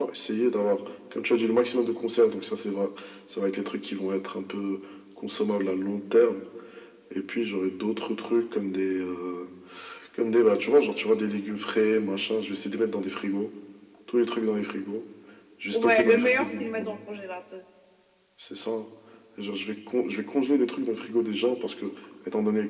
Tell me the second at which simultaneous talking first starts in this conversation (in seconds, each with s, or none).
15.7 s